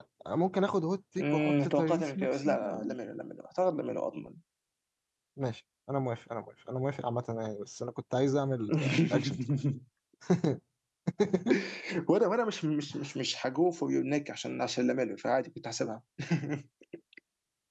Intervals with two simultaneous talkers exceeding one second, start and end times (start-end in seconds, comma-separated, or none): 1.2-2.9